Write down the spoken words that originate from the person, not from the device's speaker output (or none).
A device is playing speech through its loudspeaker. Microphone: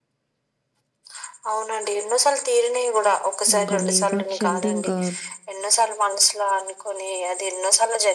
ఇంకా లేపాక్షి అంటే ఇంకా